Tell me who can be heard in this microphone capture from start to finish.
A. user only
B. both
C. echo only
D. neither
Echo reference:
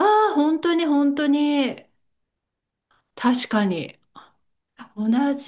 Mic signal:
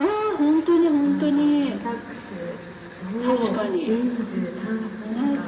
B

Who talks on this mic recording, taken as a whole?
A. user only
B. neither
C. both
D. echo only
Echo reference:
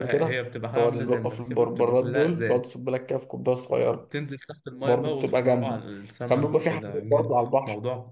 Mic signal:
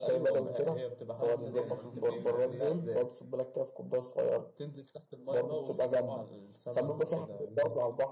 C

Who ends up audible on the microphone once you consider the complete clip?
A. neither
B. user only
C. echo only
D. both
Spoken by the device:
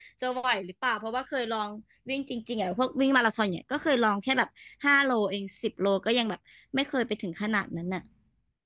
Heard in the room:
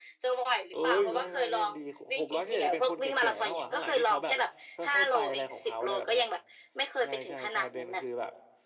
D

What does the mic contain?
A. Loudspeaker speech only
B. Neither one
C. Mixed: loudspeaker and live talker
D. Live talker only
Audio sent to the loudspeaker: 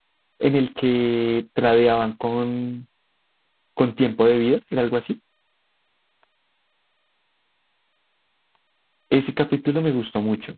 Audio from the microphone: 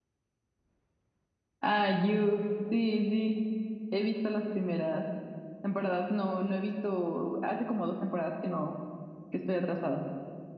D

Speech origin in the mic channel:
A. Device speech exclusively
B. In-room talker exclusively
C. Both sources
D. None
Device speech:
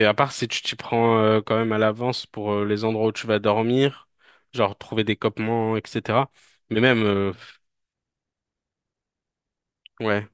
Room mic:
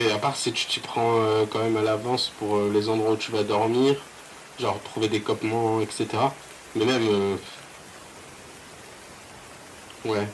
A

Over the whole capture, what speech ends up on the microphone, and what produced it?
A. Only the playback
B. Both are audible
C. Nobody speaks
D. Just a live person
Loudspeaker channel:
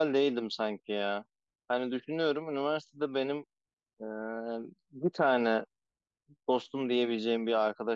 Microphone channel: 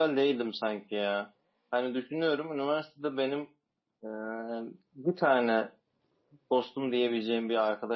A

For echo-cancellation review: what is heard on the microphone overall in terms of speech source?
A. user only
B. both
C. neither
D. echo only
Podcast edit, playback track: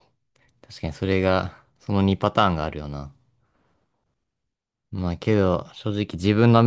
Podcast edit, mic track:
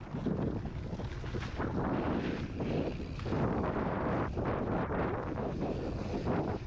C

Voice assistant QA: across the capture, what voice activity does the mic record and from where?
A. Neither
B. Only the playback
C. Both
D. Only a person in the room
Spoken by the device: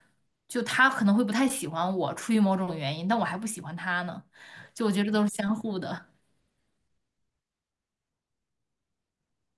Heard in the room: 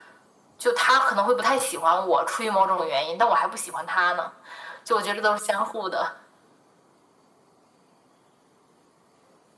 B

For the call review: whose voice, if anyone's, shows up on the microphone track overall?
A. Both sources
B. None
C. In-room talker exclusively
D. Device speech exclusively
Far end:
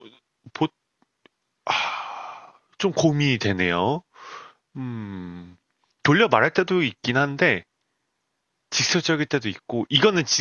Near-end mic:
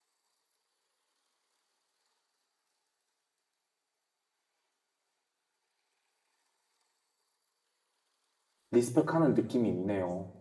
C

